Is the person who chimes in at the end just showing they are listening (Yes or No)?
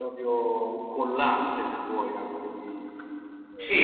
No